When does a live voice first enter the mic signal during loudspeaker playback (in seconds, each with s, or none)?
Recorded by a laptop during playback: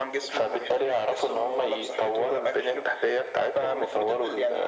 none